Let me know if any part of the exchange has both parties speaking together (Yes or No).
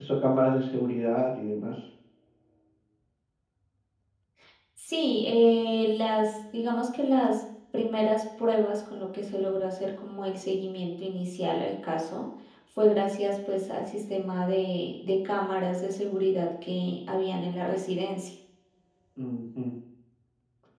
No